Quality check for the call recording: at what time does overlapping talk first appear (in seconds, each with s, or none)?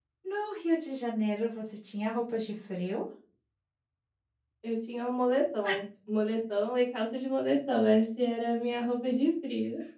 none